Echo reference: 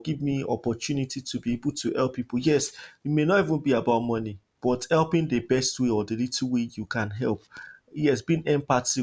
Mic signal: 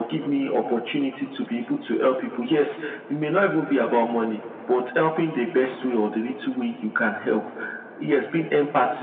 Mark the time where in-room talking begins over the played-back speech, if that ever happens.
none

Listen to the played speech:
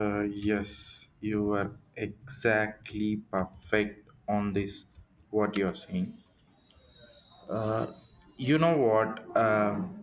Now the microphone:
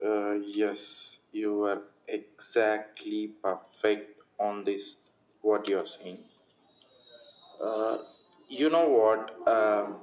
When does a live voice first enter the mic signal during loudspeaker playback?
none

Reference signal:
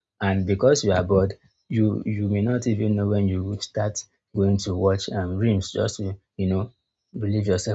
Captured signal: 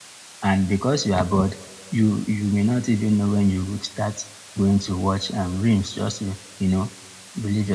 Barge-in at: none

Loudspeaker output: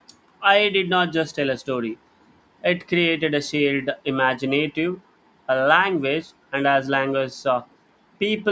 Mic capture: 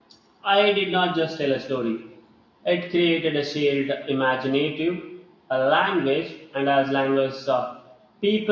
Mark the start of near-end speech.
none

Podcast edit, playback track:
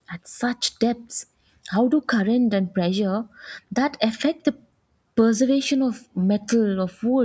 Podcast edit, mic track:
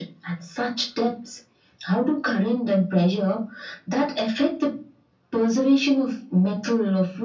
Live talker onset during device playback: none

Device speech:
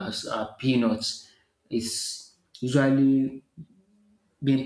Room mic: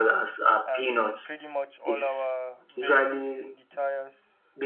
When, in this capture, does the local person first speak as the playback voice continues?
0.7 s

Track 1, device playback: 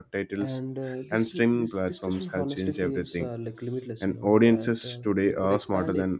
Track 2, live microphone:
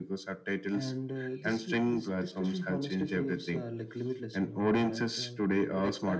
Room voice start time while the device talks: none

